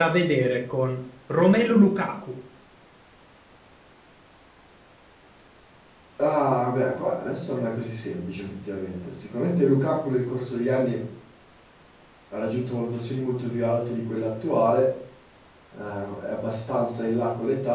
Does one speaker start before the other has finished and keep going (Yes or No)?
No